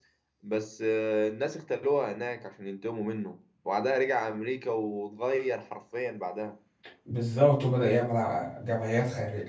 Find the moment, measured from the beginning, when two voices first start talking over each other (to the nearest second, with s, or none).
none